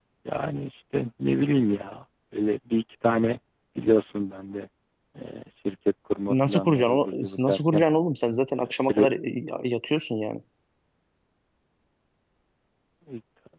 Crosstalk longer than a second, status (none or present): present